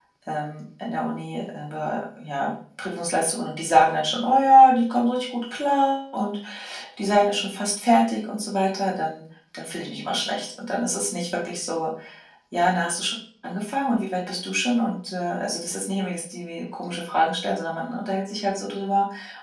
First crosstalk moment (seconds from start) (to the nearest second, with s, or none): none